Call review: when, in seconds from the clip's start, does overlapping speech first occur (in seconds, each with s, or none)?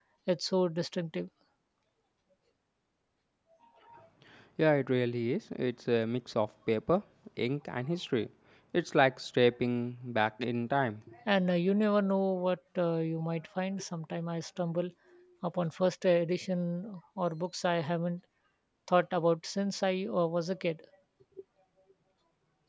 none